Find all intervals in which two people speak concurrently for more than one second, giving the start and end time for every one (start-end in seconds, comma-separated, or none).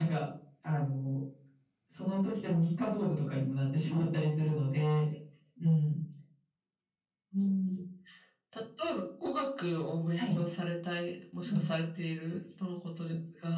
none